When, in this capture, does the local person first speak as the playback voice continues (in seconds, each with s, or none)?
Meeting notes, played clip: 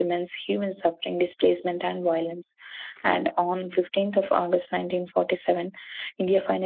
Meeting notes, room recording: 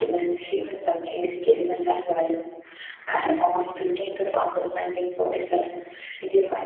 none